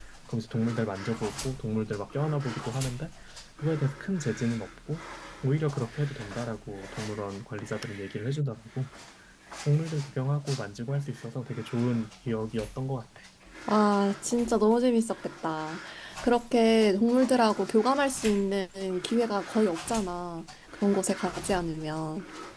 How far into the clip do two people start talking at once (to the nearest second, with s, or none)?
none